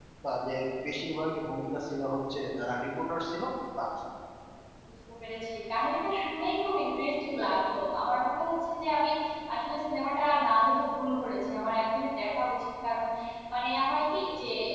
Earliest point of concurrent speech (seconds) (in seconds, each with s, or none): none